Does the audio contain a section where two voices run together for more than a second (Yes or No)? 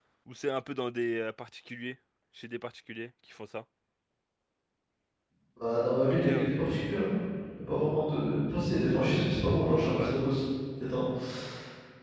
No